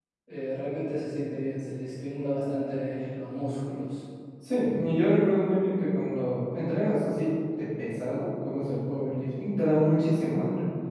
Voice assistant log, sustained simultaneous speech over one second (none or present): none